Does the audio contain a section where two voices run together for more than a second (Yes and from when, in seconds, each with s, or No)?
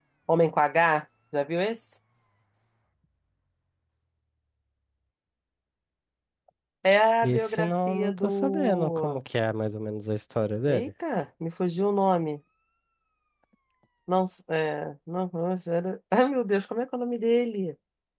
Yes, from 7.2 s